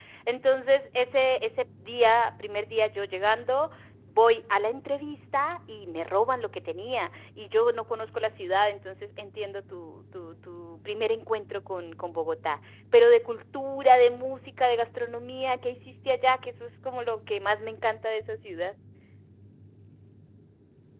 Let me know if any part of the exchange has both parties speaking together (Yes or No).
No